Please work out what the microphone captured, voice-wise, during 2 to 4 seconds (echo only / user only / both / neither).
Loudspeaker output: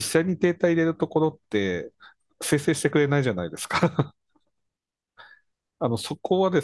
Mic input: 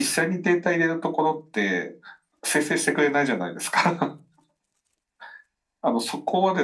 echo only